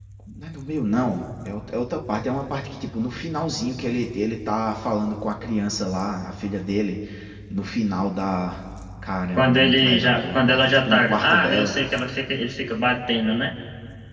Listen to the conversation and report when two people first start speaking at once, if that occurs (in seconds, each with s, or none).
9.4 s